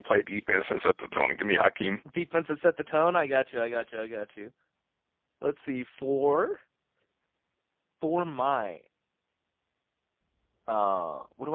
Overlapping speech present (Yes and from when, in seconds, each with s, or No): No